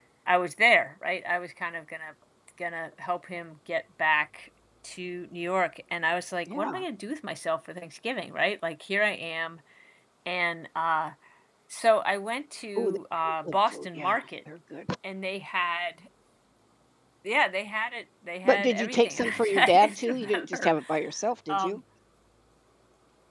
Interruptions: present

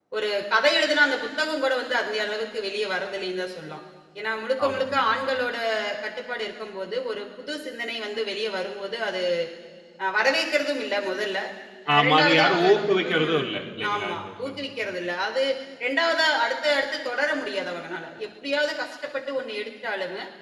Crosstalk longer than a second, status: present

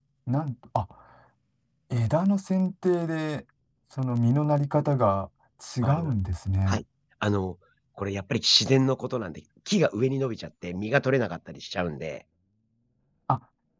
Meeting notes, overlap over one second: none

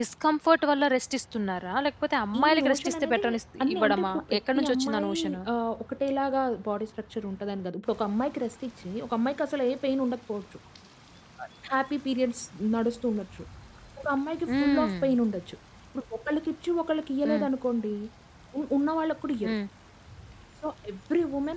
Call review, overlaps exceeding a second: present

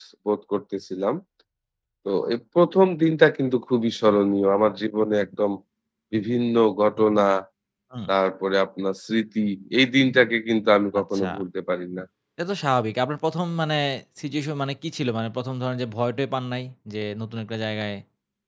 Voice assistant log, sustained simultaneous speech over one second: none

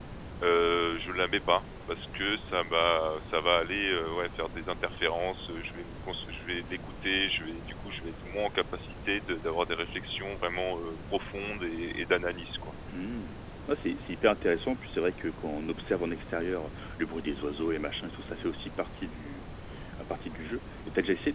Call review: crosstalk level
none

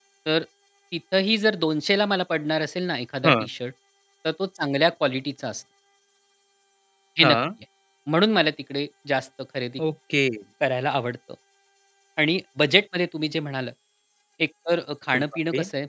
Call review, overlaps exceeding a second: none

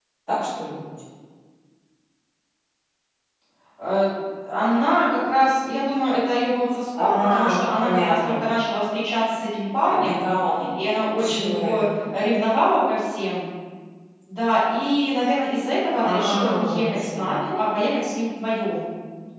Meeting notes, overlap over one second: present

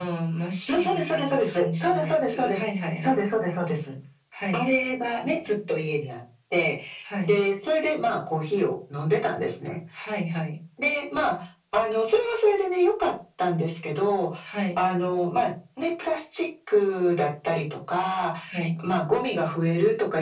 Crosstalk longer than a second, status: present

